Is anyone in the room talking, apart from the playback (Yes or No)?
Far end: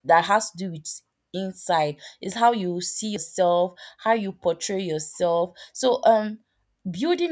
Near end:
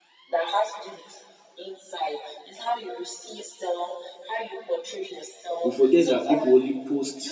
Yes